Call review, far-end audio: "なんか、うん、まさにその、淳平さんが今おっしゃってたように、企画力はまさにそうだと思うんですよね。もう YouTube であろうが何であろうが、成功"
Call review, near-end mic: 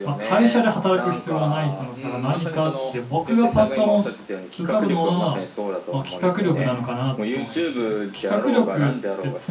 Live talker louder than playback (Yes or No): Yes